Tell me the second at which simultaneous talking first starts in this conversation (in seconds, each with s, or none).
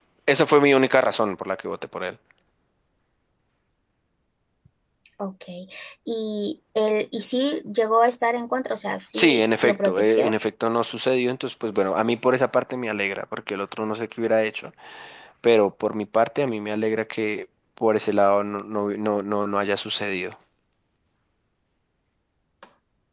9.1 s